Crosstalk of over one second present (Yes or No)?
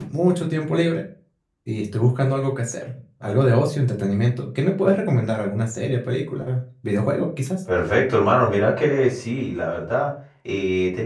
No